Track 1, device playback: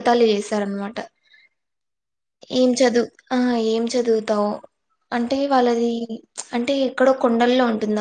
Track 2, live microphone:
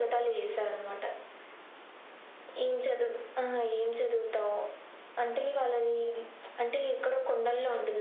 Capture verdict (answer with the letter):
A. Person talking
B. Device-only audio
B